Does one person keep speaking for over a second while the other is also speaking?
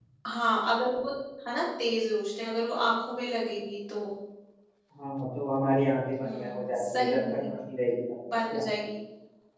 Yes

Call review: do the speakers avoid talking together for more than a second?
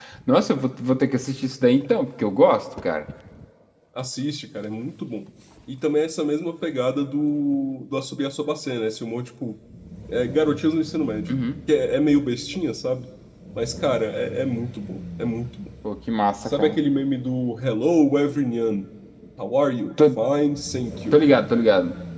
Yes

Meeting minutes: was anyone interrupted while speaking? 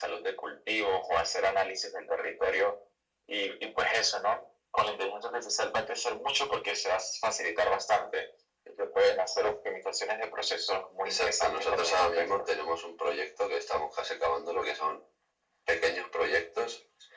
Yes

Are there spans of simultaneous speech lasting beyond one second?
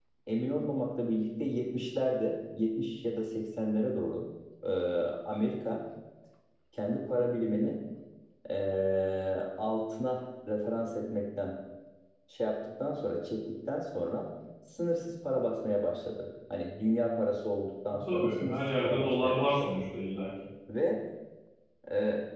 Yes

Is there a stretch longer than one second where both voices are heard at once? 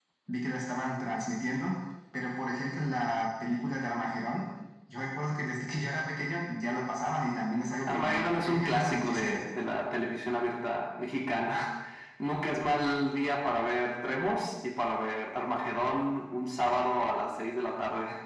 Yes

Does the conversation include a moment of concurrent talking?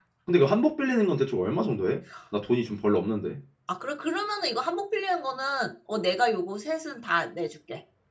No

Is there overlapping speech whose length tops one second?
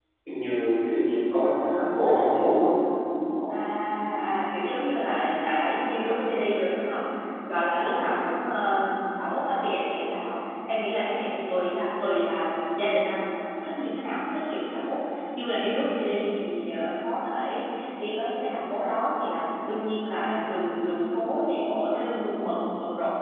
No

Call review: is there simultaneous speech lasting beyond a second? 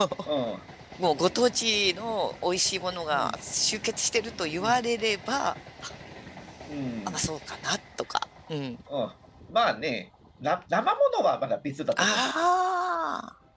No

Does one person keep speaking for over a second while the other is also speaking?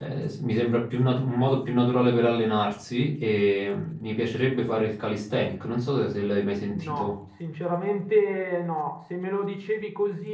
No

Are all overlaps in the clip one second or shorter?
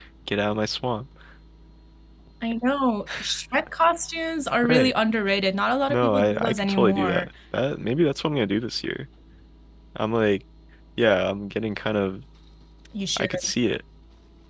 No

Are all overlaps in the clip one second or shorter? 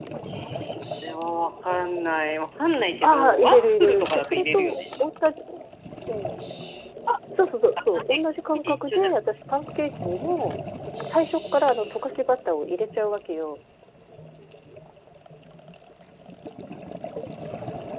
No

